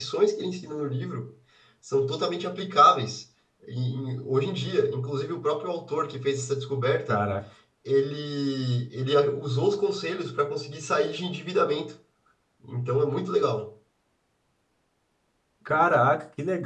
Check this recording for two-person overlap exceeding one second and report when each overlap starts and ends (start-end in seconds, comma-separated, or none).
none